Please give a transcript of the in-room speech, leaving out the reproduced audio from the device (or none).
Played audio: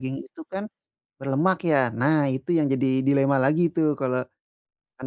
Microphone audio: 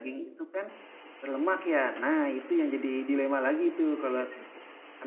Wah, iya sih.